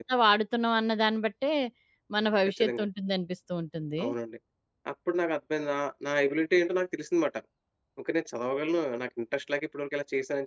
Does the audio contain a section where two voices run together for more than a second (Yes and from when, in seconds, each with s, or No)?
No